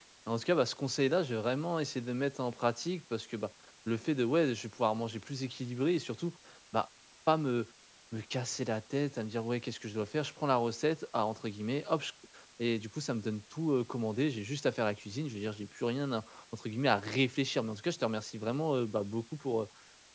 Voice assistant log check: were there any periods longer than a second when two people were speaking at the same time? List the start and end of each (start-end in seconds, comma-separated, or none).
none